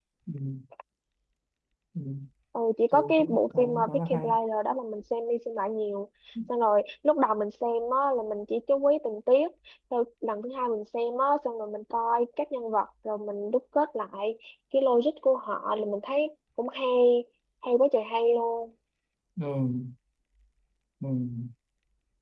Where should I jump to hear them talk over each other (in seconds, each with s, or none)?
2.9 s